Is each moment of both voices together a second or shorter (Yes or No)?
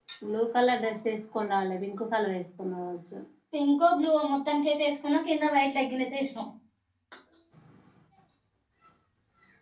Yes